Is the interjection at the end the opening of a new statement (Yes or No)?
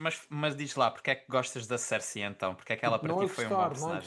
Yes